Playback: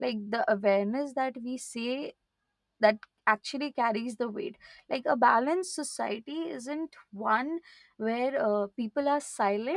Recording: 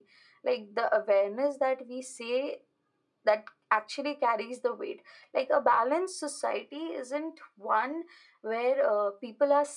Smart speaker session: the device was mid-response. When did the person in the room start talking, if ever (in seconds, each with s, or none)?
none